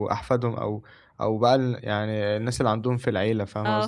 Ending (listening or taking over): taking over